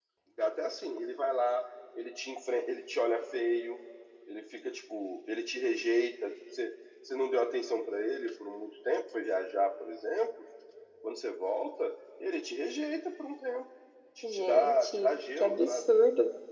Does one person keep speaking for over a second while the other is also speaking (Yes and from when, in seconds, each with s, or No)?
Yes, from 14.3 s